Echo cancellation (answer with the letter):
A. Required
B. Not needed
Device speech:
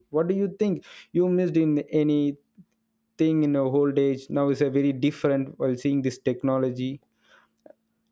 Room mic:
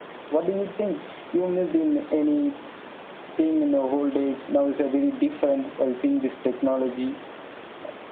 A